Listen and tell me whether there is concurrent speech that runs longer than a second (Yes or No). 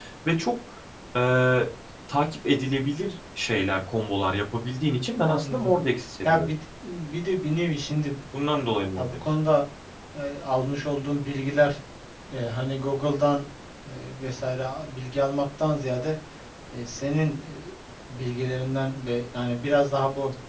No